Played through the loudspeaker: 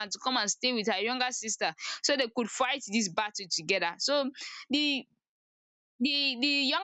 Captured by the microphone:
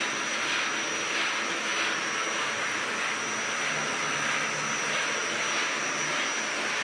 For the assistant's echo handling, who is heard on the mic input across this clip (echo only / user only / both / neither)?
neither